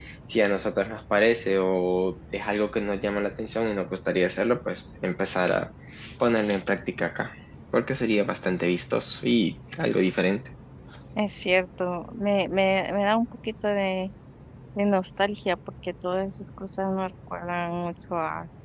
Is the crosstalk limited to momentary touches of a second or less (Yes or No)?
Yes